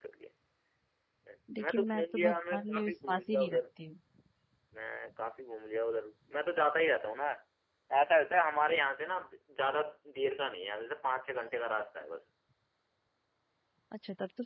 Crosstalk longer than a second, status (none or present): present